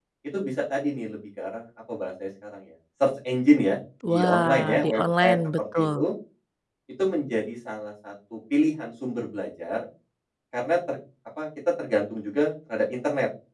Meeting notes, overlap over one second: present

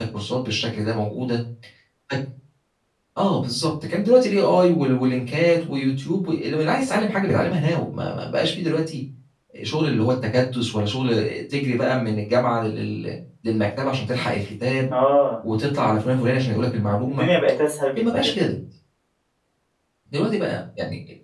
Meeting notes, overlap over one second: none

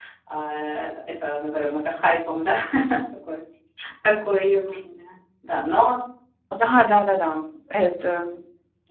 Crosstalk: none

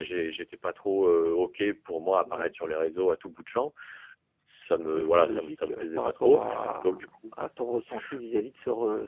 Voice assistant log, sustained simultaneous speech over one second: present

